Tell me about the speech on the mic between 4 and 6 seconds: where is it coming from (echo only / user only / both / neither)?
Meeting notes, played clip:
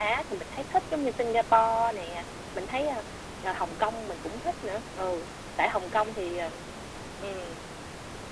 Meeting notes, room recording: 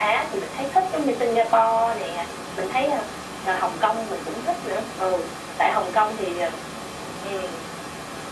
echo only